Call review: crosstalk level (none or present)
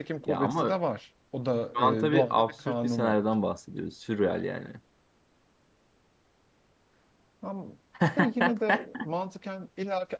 present